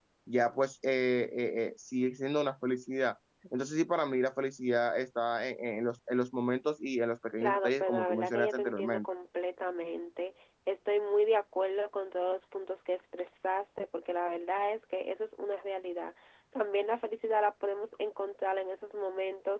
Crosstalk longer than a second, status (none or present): present